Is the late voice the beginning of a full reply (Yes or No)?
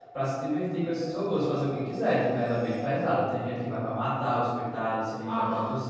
No